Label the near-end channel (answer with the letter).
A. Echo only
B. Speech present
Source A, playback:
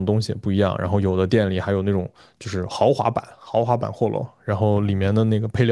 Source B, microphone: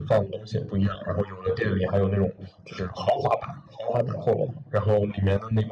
A